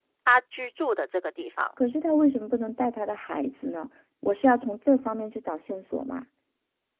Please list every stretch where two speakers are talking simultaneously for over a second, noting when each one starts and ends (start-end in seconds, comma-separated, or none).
none